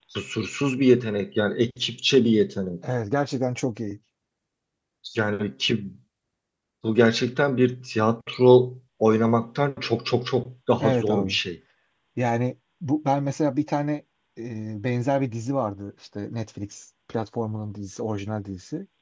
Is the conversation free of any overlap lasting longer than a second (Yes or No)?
Yes